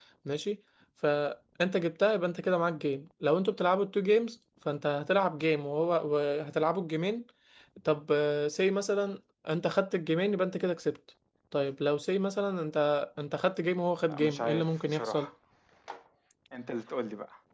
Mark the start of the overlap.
14 s

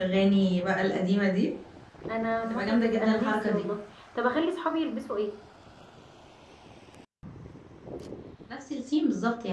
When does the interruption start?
2 s

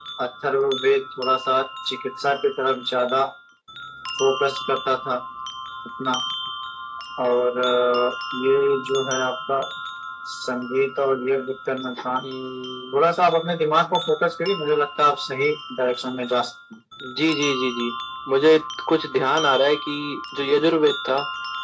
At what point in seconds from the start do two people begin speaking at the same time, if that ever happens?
none

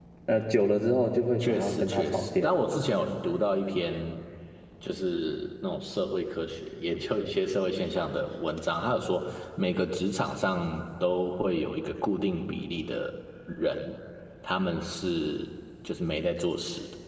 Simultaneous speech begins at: 1 s

